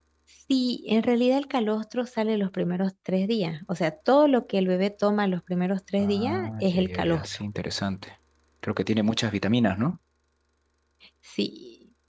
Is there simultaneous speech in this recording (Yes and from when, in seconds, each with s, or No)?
Yes, from 6.0 s